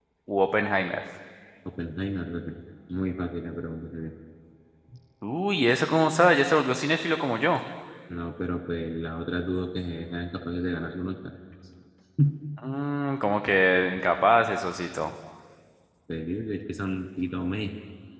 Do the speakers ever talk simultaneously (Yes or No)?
No